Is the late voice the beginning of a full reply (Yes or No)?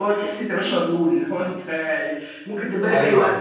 Yes